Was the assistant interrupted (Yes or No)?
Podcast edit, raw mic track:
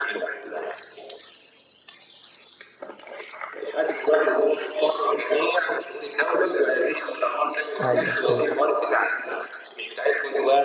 Yes